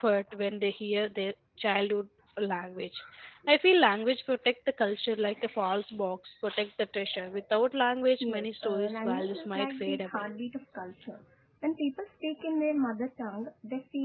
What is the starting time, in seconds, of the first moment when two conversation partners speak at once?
8.2 s

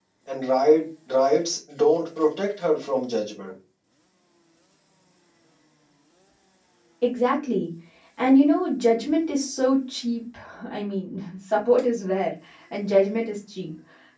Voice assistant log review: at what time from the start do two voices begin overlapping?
none

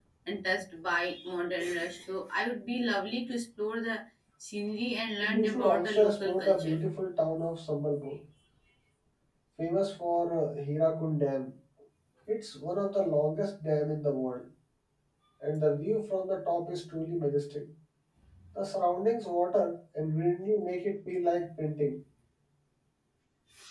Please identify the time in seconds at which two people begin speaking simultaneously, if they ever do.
5.2 s

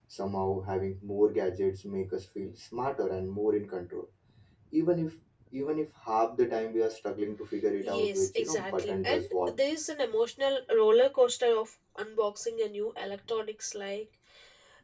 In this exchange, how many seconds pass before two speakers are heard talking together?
7.8 s

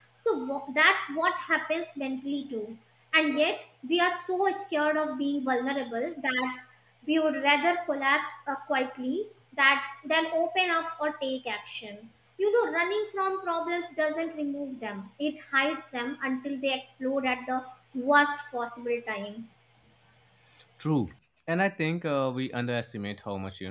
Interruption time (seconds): none

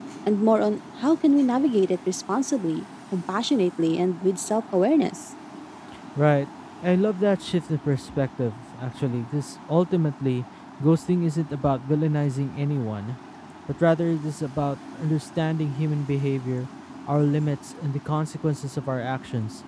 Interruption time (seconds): none

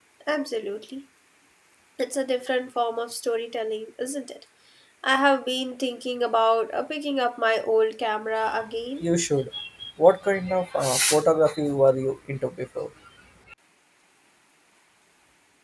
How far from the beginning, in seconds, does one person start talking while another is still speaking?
none

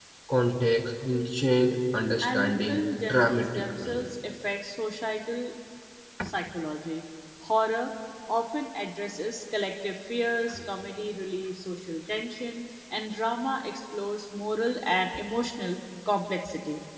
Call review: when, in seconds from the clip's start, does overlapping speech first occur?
2.2 s

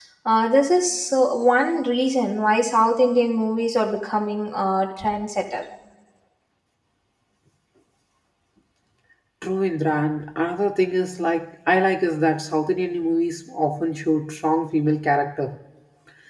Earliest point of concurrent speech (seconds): none

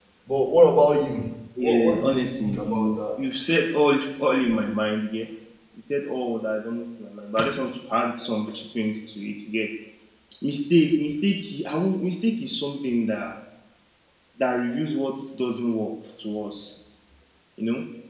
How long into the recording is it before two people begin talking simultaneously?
1.6 s

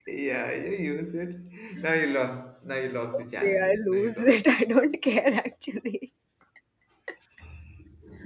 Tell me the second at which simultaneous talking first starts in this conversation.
3.1 s

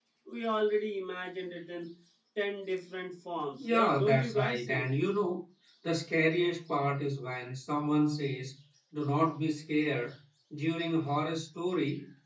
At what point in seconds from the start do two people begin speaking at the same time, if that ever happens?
3.6 s

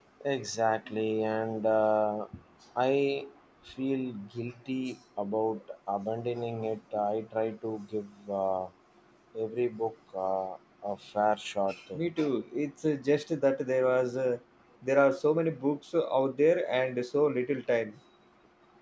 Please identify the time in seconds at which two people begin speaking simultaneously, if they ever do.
none

